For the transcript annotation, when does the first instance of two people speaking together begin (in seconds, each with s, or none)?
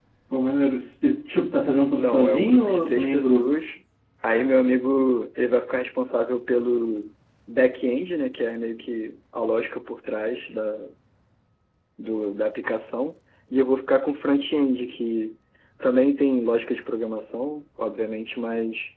1.9 s